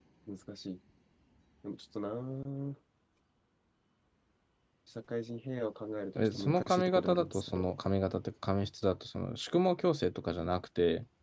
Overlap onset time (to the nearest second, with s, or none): 6 s